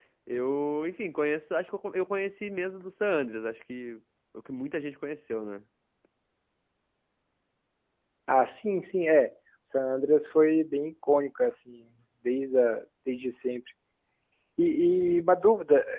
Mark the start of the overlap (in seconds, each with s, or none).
none